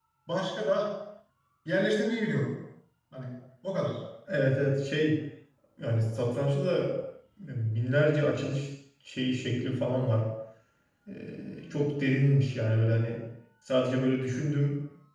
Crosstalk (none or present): none